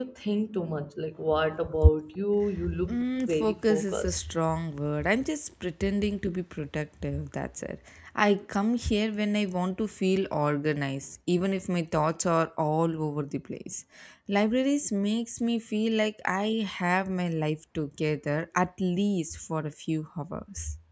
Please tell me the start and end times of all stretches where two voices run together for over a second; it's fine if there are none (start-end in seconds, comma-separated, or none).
2.9-4.3